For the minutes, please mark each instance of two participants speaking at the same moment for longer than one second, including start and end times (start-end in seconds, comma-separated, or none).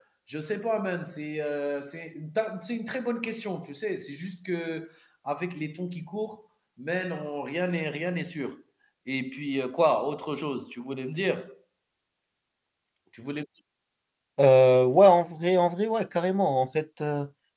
none